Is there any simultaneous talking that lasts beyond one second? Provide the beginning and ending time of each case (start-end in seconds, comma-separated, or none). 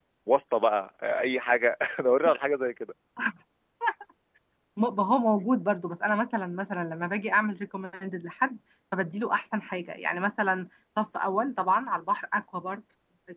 none